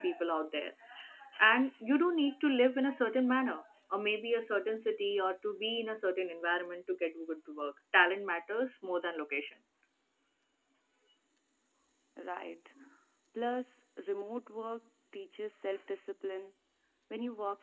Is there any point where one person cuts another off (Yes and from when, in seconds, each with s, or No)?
No